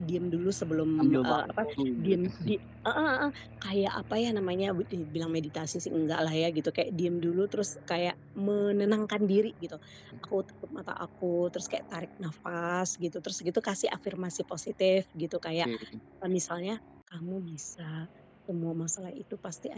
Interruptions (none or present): present